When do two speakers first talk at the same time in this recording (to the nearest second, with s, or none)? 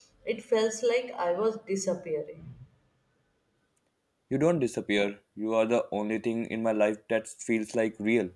none